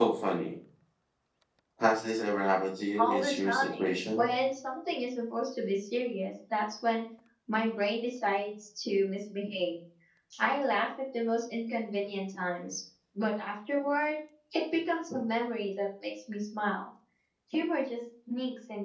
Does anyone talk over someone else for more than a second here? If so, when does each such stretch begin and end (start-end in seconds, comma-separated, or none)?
3.0-4.3